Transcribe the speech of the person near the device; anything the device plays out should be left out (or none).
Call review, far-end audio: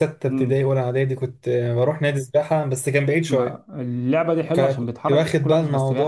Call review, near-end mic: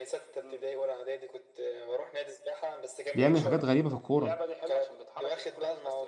بيعمل حاجات غريبة في الكورة